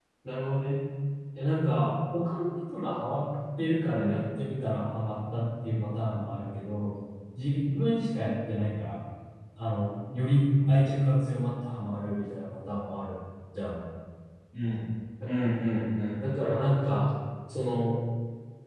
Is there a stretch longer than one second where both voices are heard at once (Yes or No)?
No